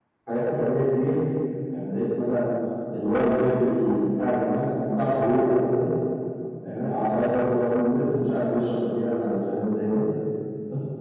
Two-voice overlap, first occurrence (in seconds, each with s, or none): none